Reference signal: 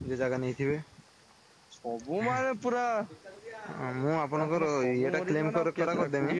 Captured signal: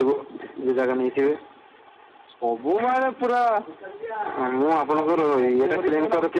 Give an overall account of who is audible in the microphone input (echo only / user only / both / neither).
echo only